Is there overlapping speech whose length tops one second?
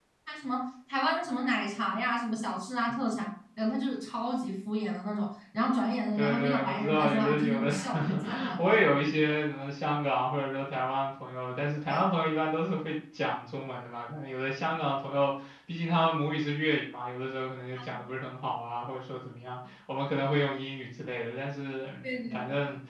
Yes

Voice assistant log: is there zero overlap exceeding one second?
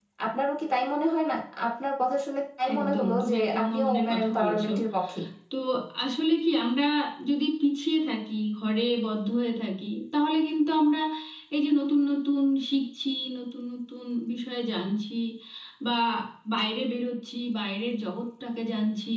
No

